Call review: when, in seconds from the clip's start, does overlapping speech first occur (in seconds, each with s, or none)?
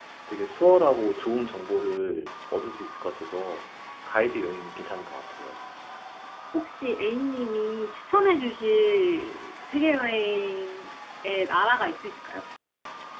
none